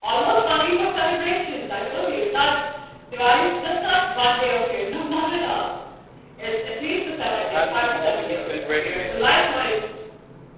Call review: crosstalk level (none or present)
present